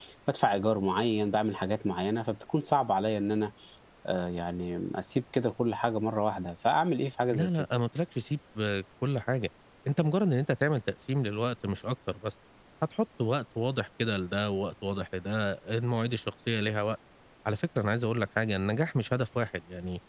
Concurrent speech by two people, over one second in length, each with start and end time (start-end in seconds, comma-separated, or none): none